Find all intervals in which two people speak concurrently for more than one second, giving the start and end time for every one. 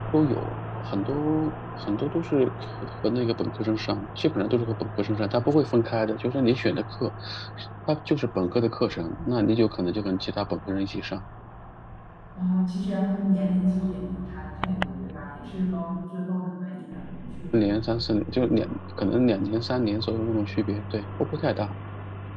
none

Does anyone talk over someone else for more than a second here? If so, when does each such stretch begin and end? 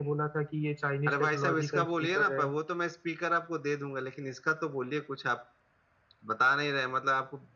1.1-2.5

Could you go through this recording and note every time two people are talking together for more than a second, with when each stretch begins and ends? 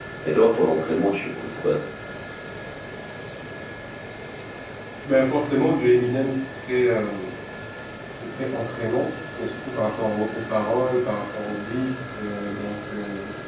none

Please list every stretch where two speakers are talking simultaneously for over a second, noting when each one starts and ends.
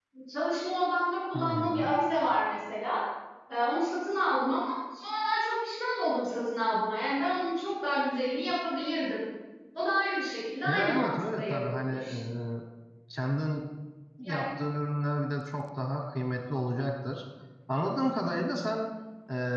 10.6-12.2

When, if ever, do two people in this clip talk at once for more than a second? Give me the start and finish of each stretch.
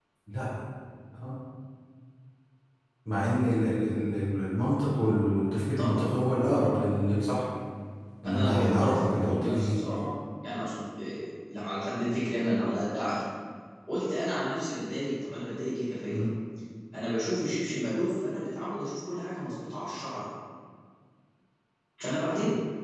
8.3-9.8

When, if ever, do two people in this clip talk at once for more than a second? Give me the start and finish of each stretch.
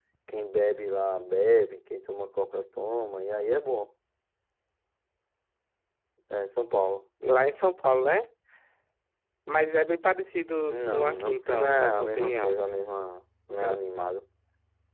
10.7-12.6

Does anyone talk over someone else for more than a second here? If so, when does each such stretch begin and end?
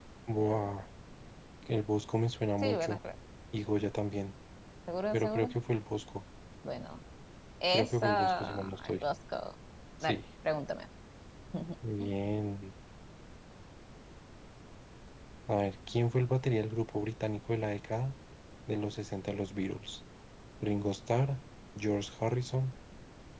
7.7-9.0

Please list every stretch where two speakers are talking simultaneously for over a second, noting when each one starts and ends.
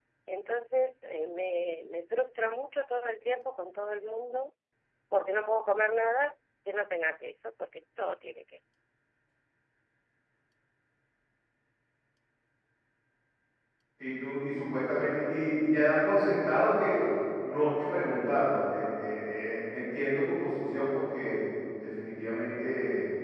none

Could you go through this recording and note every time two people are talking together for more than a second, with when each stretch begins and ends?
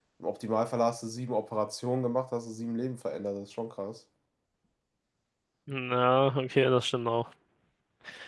none

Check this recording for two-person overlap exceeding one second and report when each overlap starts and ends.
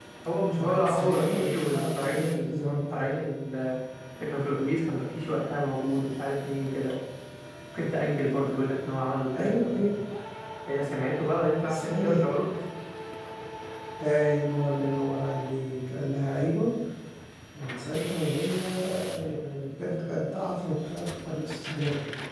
0.6-3.1

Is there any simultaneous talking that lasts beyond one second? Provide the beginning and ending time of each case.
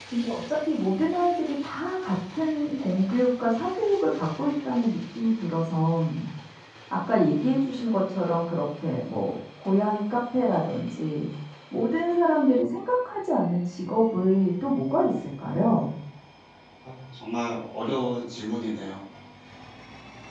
none

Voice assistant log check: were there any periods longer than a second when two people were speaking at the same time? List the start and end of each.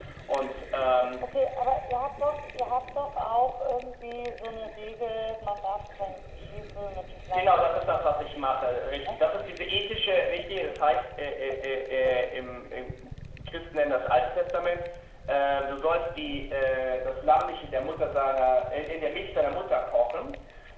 7.3-8.6

